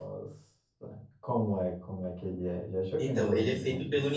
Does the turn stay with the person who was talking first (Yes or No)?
No